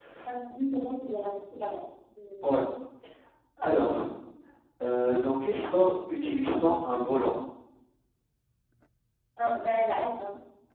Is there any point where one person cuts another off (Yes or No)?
No